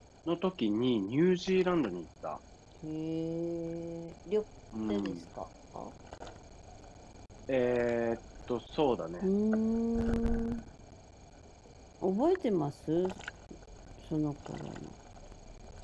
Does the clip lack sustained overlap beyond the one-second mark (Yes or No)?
Yes